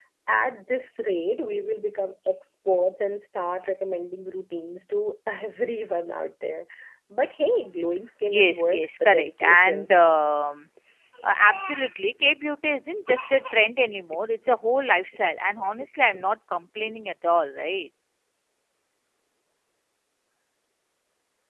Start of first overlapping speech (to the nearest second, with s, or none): 8 s